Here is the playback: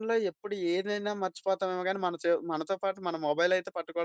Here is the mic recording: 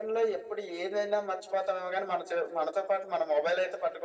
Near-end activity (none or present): none